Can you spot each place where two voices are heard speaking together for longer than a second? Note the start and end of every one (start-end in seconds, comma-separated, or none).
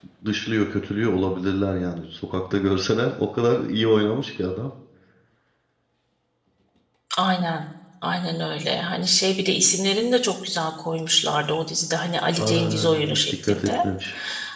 12.3-13.8